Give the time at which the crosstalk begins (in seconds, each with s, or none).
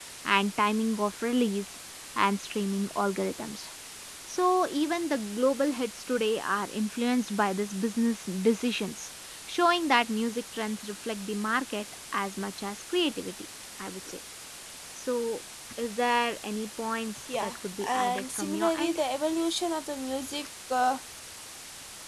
17.3 s